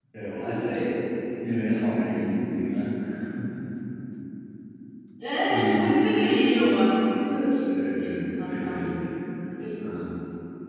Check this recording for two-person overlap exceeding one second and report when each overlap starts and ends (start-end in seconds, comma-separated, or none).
7.7-9.0